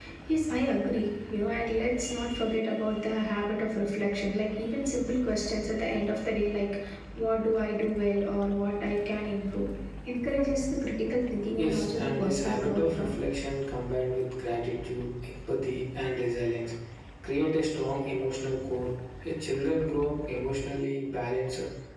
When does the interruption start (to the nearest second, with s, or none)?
12 s